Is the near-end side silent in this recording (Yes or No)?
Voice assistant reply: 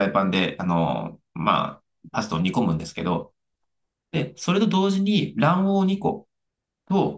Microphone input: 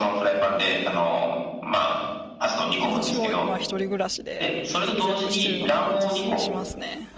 No